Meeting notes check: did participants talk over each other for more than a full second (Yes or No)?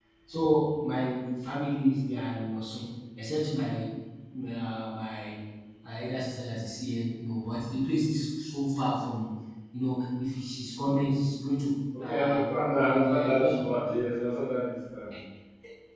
Yes